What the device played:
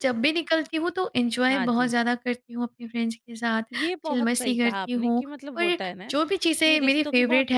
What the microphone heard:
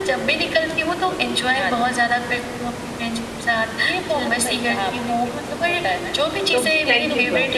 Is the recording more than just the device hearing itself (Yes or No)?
Yes